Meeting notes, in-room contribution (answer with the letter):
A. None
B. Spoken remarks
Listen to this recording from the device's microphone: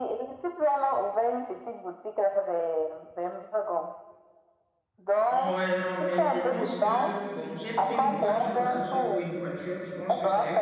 B